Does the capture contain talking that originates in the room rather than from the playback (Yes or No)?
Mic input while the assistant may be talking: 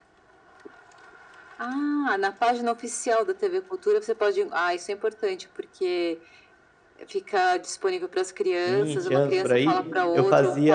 Yes